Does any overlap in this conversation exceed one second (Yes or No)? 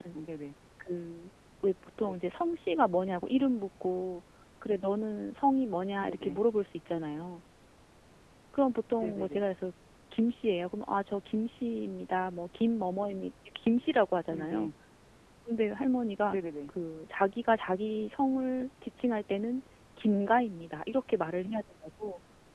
No